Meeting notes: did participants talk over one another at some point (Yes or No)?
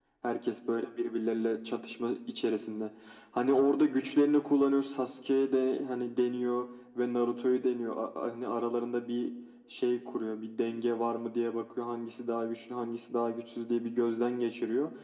No